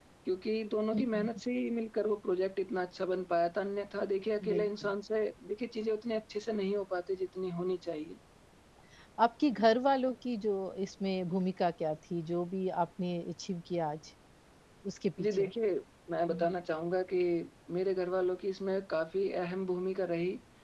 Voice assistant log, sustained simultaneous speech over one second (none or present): none